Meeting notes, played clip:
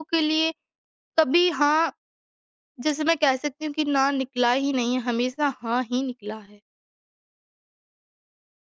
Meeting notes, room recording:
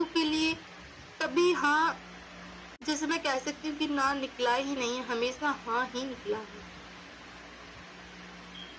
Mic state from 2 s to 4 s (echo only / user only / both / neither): echo only